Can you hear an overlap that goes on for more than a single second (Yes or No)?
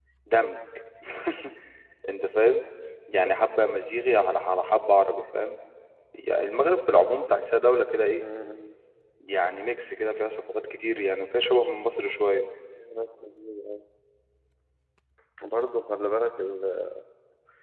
No